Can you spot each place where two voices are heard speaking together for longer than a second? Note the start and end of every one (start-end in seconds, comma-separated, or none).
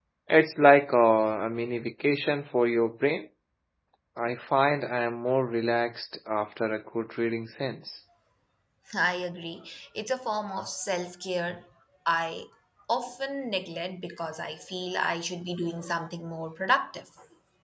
none